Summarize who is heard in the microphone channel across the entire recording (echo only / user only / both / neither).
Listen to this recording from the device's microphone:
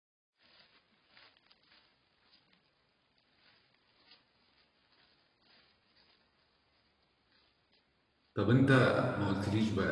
user only